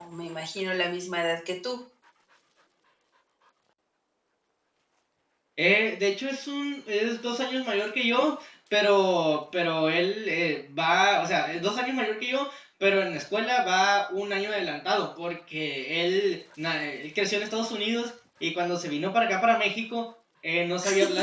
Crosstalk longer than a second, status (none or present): none